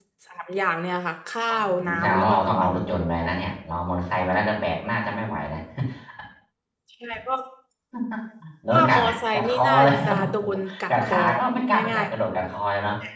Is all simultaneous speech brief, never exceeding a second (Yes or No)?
No